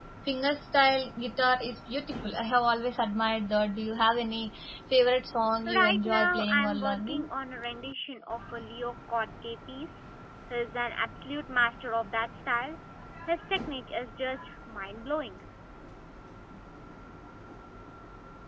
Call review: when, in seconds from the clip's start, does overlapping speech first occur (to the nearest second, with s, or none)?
6 s